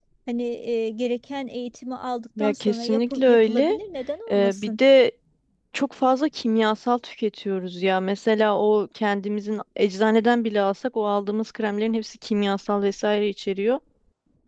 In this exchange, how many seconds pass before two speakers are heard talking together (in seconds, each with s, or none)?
2.4 s